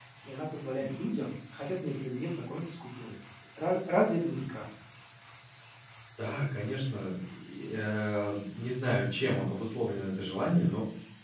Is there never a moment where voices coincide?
Yes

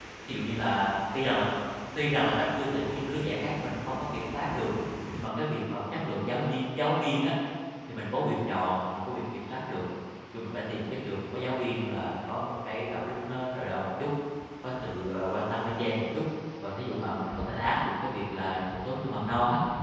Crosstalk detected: No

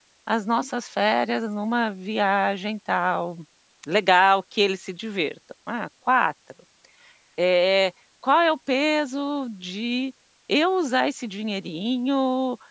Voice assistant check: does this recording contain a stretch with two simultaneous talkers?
No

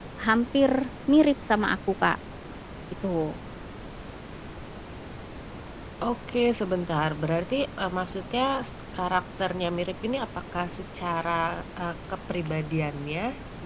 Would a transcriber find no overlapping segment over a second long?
Yes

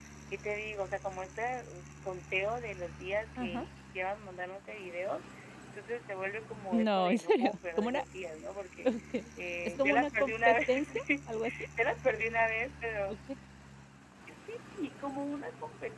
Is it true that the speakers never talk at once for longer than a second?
No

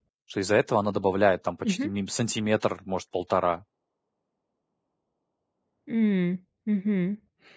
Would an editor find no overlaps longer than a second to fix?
Yes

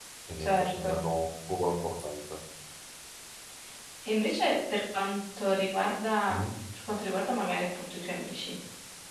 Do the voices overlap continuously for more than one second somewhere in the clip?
No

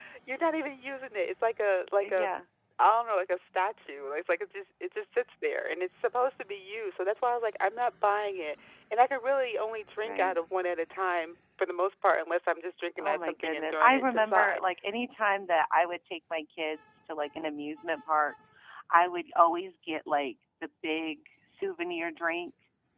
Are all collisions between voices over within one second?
No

